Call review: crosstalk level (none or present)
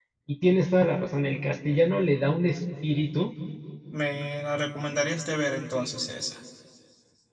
none